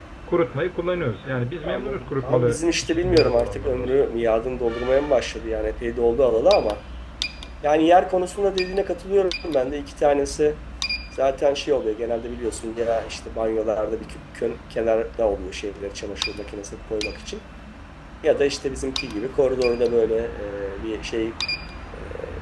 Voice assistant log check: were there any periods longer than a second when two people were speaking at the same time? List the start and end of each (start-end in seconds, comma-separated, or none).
1.6-4.0